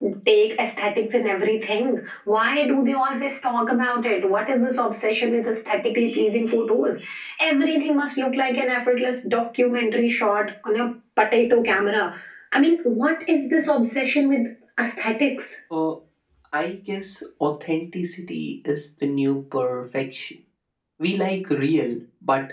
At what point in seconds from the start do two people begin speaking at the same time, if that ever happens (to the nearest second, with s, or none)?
none